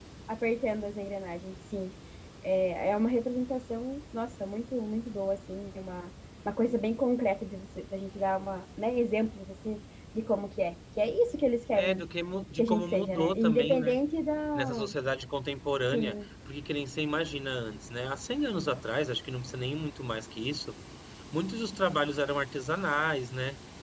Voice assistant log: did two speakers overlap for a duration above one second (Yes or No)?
Yes